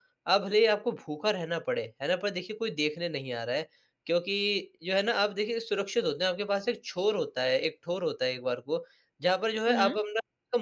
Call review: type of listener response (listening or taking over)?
listening